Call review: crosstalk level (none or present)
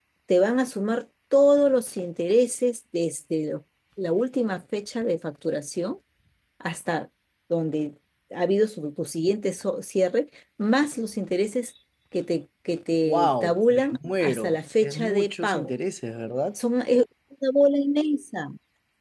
present